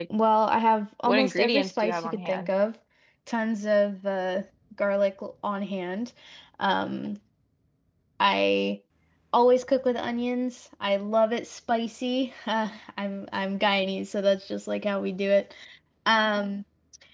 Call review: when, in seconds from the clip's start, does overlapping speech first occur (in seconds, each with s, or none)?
1.1 s